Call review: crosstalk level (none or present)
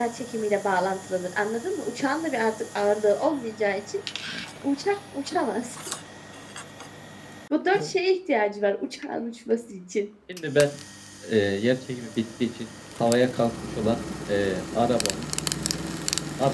none